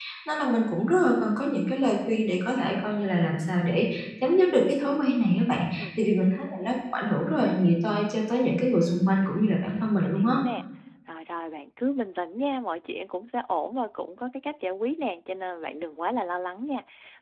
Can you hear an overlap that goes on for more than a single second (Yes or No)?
No